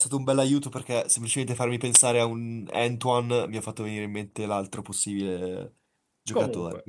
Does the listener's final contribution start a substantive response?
Yes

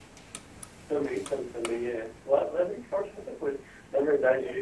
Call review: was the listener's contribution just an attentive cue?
Yes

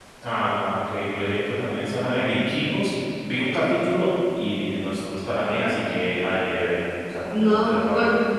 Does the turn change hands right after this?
Yes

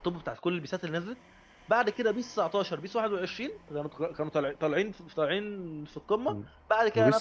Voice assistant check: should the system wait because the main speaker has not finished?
No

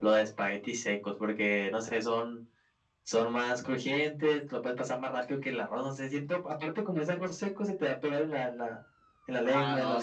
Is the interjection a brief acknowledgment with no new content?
No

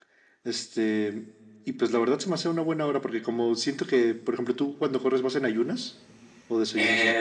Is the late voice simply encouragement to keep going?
No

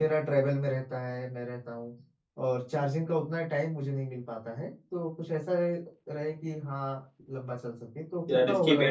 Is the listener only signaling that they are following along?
No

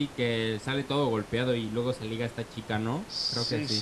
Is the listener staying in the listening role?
No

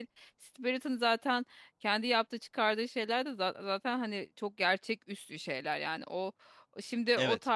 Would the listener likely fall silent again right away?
No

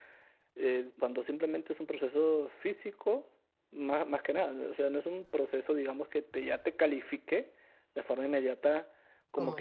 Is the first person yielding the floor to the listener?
No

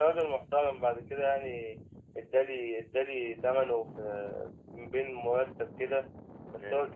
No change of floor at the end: Yes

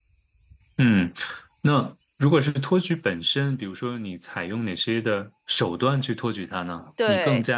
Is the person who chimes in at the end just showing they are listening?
Yes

